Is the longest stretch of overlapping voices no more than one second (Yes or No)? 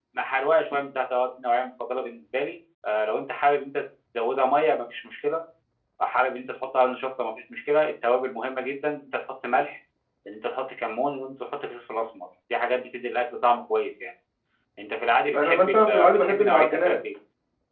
No